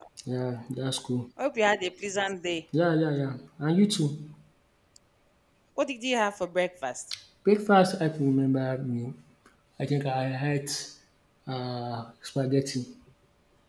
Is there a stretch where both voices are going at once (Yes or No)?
No